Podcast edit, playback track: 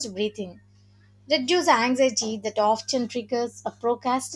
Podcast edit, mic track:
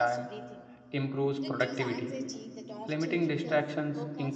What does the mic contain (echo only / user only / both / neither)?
both